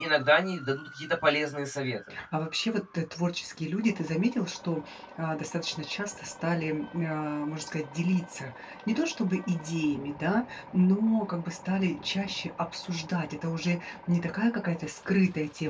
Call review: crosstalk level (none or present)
none